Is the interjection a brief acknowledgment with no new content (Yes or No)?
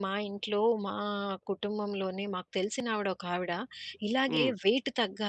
Yes